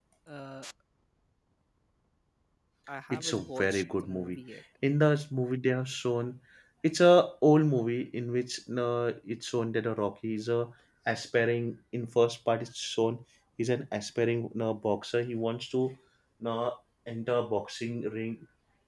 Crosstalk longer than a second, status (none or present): present